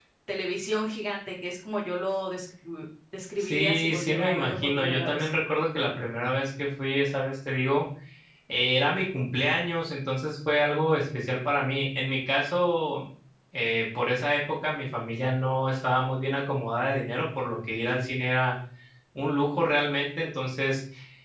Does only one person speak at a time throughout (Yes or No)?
No